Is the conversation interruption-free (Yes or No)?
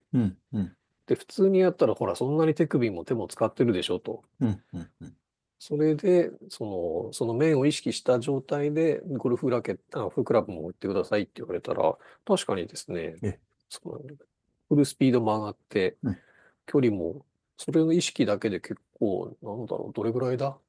Yes